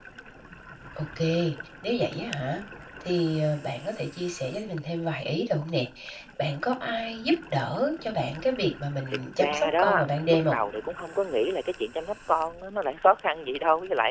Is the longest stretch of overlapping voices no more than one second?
No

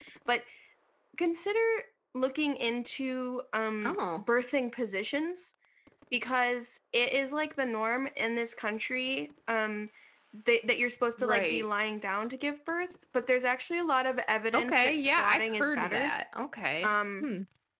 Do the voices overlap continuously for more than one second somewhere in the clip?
Yes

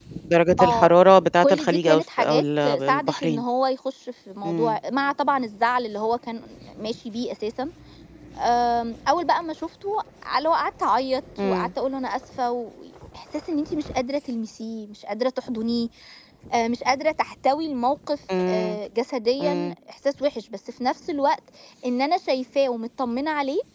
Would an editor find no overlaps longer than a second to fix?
No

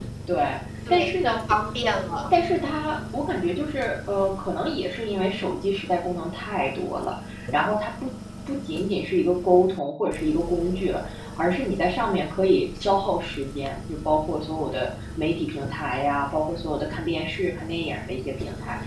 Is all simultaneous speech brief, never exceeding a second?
Yes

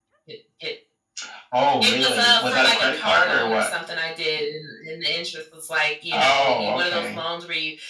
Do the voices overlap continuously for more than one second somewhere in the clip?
Yes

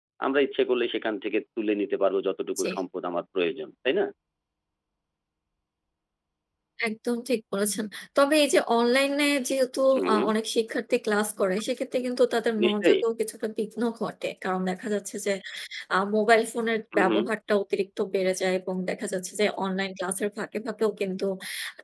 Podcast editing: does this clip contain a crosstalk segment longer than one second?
No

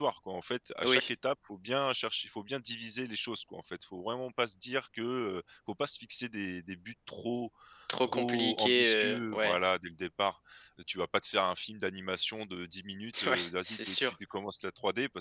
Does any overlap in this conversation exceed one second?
Yes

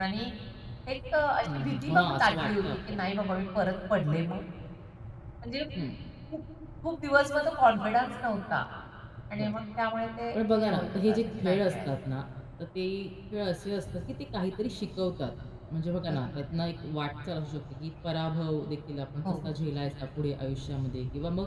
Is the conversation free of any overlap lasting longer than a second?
No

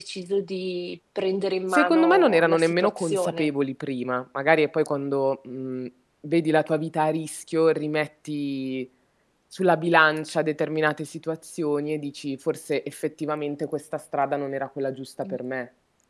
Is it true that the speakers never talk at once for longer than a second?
No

